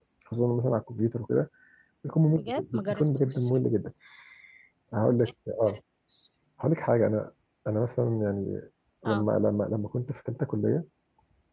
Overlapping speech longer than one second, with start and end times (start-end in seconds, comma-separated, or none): 2.3-3.5